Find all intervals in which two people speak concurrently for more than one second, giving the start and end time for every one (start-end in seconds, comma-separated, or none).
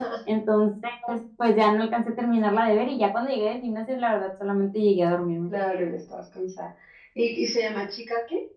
none